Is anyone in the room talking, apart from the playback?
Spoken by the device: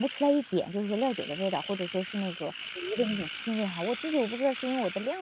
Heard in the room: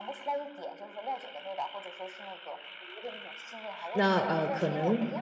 Yes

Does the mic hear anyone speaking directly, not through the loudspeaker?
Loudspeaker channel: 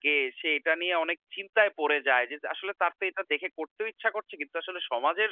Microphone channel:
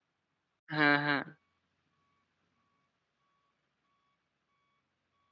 Yes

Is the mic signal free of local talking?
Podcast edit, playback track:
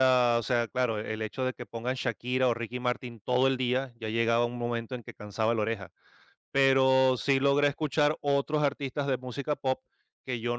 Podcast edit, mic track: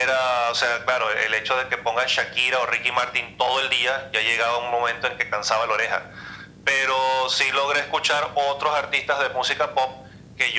Yes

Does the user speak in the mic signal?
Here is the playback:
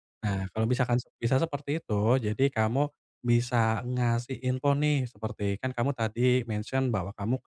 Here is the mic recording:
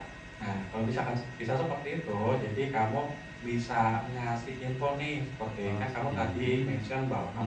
Yes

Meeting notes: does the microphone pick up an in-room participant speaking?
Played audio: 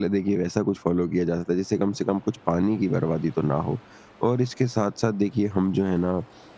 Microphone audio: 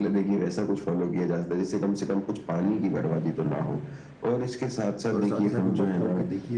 Yes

